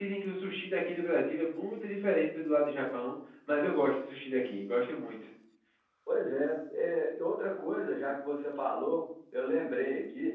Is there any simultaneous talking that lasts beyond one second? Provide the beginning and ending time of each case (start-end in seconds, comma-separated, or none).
none